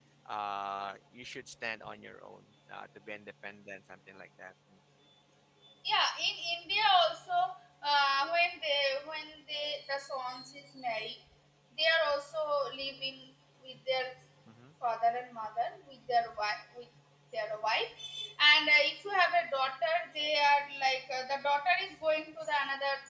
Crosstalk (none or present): none